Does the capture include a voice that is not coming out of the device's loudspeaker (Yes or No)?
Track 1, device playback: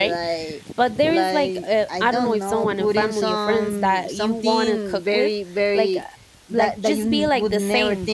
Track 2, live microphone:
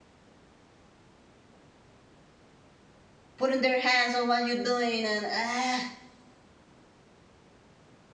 Yes